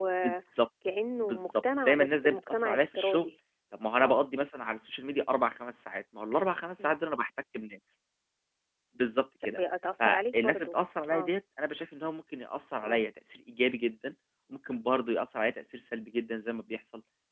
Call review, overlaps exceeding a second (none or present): present